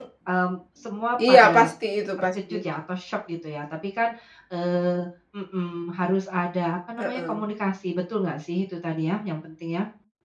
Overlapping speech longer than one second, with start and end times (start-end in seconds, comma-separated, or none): none